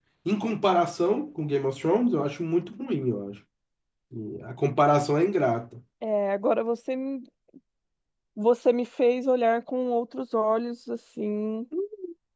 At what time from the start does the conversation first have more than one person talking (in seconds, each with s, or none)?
none